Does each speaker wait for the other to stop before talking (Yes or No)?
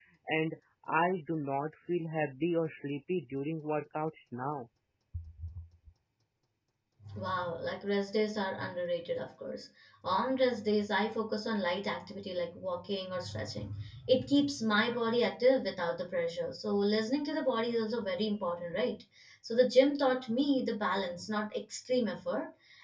Yes